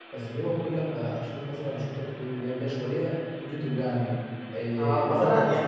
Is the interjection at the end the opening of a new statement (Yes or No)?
Yes